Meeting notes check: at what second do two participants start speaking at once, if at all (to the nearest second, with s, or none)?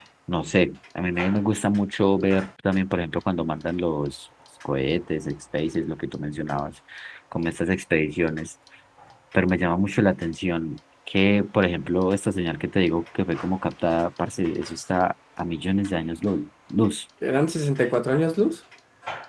none